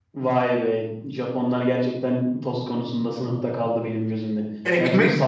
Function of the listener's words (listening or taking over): taking over